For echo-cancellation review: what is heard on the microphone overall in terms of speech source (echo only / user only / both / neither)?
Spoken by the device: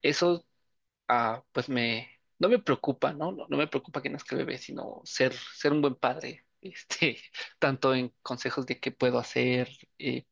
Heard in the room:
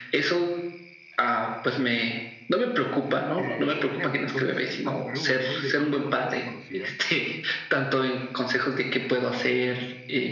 both